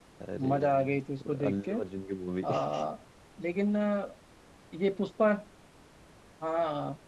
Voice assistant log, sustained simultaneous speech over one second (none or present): present